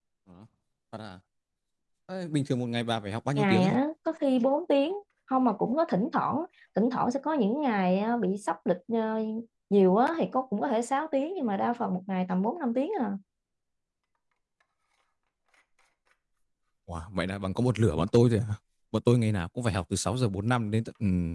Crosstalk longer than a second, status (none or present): none